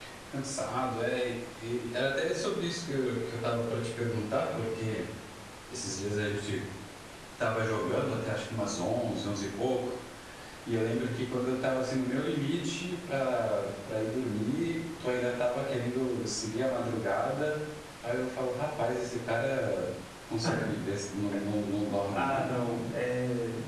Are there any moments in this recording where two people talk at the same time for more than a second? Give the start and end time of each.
none

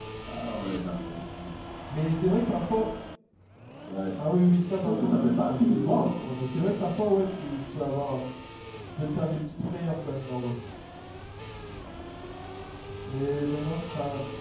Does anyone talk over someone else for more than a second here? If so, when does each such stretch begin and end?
4.8-6.0

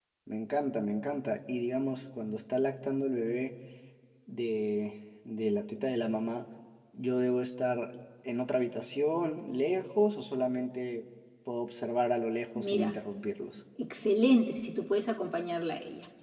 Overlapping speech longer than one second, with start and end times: none

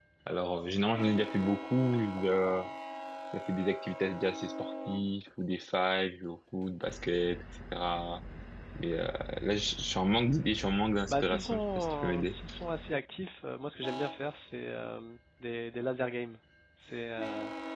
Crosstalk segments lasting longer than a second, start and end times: 11.1-12.4

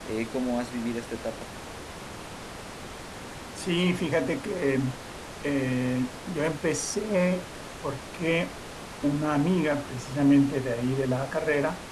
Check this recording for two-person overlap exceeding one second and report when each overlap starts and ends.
none

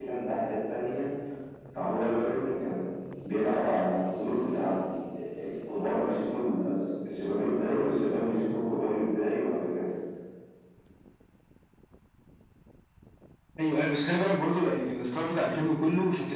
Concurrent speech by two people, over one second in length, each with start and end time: none

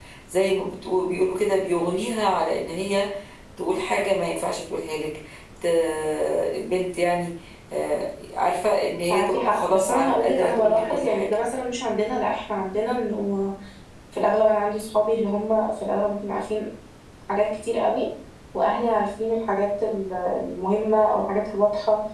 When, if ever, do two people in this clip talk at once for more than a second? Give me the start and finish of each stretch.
9.1-11.3

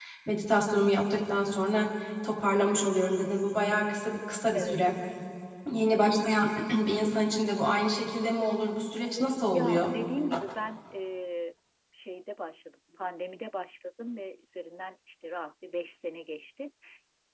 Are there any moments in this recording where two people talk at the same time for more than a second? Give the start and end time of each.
none

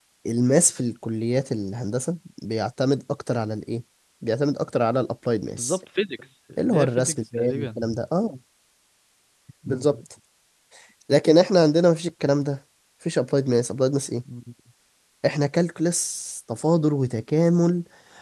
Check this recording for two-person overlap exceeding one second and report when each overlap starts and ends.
6.6-7.8

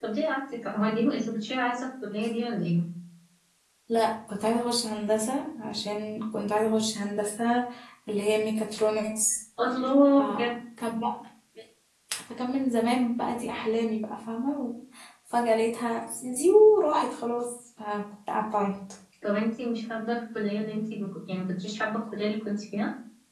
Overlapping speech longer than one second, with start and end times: none

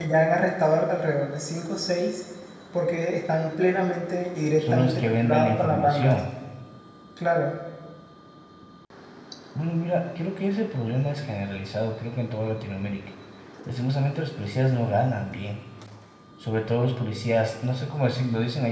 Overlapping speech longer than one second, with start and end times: 4.6-6.2

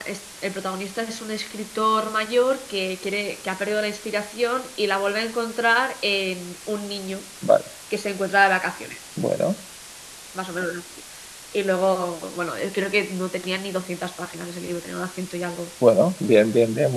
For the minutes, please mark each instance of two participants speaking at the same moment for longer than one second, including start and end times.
none

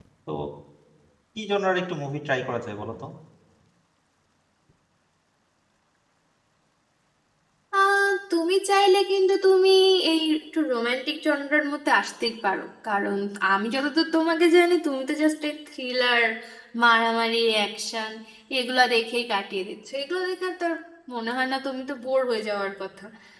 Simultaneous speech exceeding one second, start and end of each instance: none

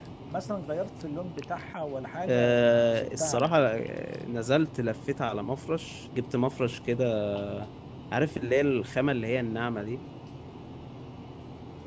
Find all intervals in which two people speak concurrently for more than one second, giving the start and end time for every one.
2.3-3.8

